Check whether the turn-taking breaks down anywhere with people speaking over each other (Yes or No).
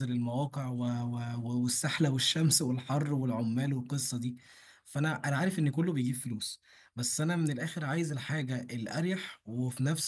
No